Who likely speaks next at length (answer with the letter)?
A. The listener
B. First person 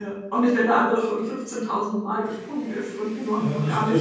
A